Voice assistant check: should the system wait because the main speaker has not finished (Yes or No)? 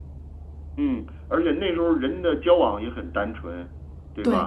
Yes